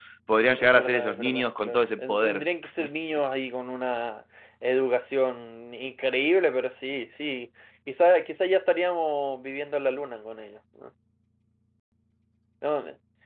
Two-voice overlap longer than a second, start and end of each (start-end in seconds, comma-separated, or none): 0.6-2.4